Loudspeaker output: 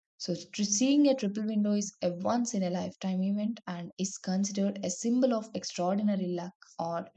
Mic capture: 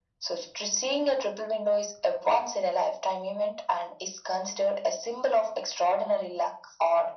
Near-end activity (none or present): none